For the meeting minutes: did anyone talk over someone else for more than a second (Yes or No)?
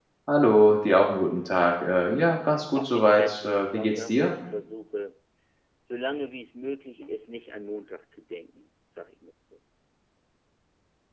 Yes